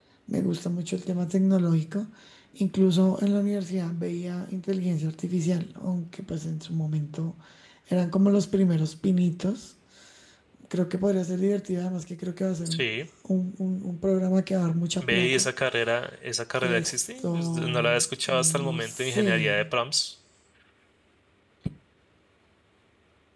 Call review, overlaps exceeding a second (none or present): present